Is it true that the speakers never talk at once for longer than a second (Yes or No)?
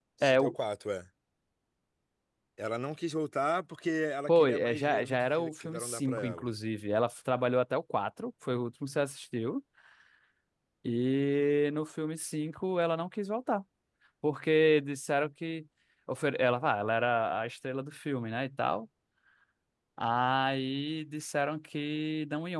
No